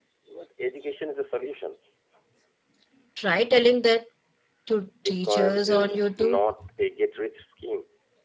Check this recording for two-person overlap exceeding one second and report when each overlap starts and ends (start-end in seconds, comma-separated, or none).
5.0-6.4